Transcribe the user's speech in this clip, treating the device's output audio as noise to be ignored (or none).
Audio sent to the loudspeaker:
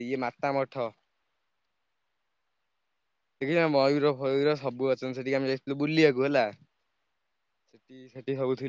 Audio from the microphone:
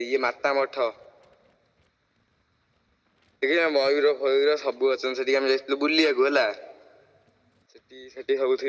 none